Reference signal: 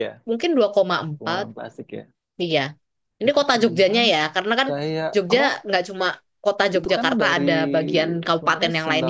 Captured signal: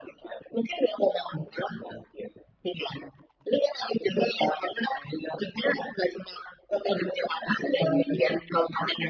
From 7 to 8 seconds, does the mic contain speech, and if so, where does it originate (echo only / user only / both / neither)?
echo only